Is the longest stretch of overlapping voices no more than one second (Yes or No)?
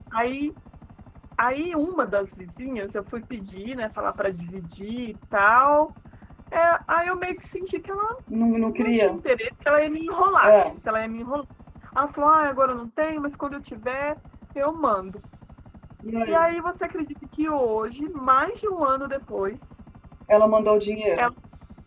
Yes